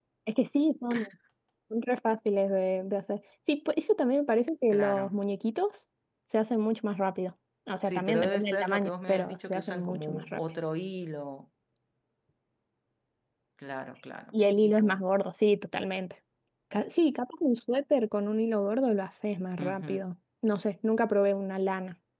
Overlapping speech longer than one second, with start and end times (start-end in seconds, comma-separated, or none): 7.8-10.4